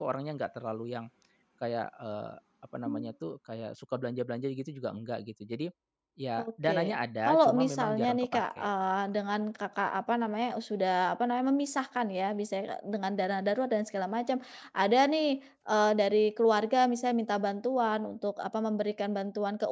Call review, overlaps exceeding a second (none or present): present